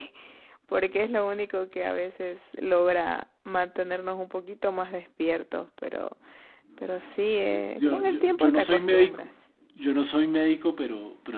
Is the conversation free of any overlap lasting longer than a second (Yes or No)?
No